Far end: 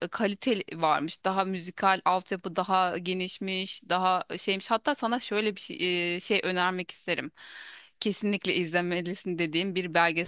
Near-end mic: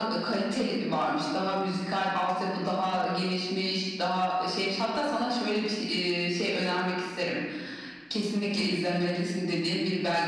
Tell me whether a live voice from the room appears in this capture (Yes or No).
No